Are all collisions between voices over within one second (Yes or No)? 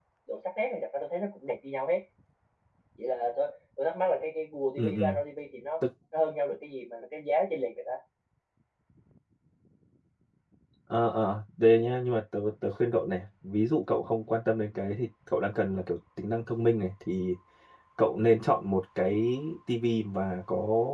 Yes